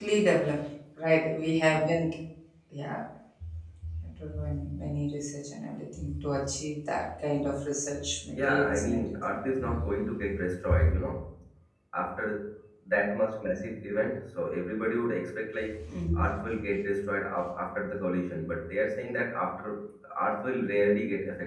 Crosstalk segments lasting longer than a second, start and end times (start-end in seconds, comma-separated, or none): 8.3-9.8